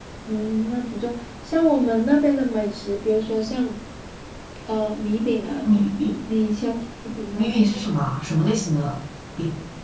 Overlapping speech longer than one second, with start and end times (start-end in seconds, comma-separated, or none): none